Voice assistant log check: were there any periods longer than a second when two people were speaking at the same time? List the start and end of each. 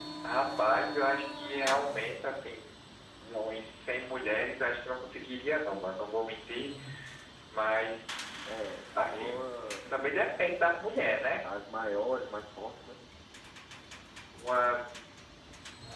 none

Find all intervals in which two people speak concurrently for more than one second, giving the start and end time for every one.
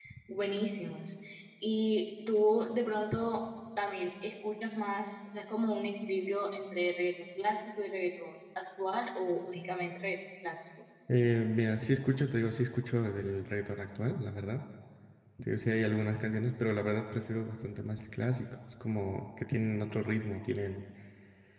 none

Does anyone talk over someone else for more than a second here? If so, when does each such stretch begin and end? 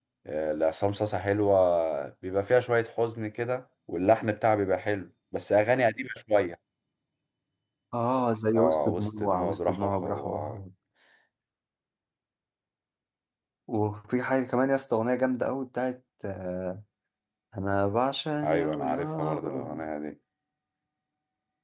8.6-10.6, 18.4-19.9

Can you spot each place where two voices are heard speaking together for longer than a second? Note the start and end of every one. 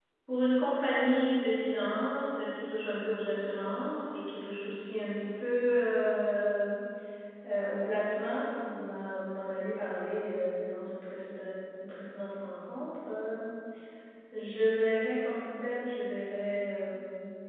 none

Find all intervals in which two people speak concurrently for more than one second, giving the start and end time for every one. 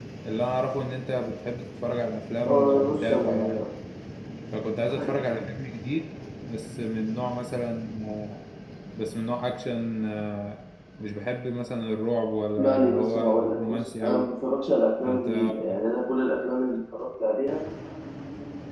2.4-3.6, 12.6-14.3

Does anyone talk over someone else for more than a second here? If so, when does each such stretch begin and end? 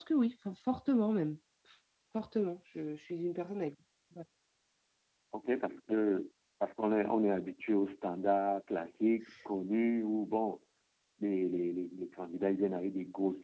none

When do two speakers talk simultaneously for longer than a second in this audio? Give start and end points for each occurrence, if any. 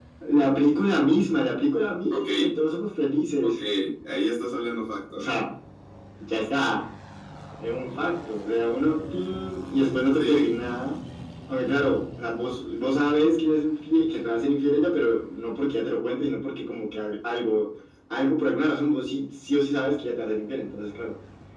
none

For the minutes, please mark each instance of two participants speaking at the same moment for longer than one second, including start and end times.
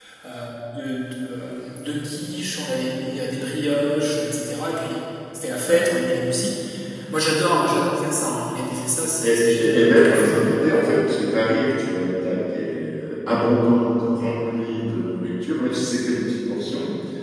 9.2-10.6

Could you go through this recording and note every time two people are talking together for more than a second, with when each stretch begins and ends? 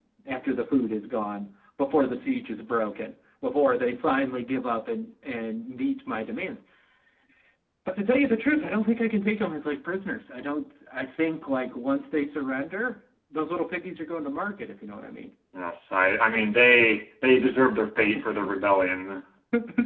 none

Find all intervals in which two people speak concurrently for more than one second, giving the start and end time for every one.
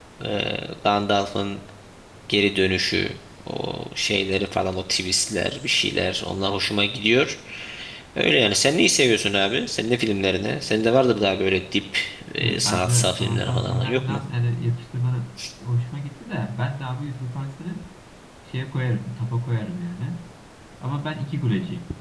12.4-14.2

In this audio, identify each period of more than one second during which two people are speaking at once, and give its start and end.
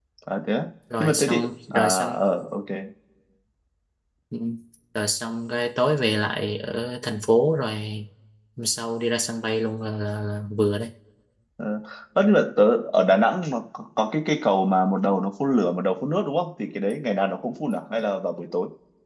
1.0-2.2

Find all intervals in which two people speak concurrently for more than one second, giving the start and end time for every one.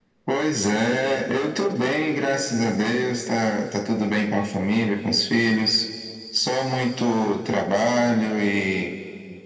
none

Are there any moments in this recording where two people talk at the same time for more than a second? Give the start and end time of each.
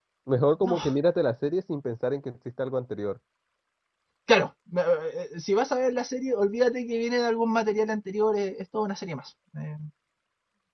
none

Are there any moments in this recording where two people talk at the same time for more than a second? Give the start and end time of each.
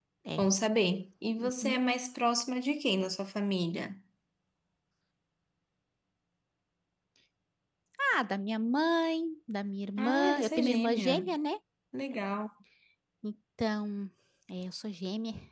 10.0-11.2

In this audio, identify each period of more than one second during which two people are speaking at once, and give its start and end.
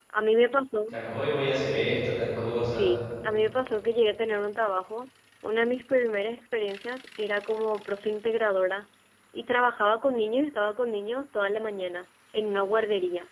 none

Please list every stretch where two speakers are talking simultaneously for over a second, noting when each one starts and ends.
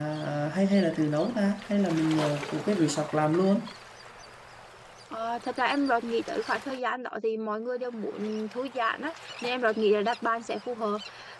none

